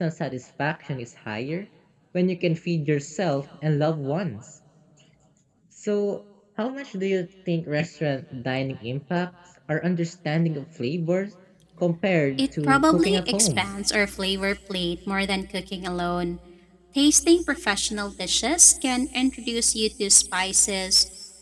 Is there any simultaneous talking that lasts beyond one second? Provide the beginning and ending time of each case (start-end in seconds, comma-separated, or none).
12.4-13.7